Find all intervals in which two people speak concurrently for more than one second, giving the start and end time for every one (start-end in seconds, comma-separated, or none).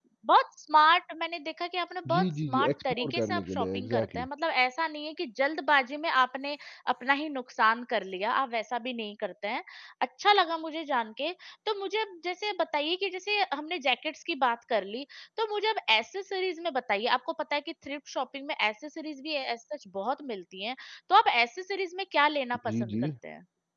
2.1-4.3